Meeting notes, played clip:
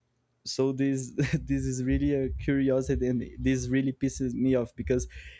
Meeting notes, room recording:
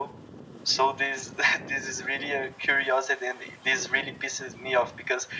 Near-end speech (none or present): none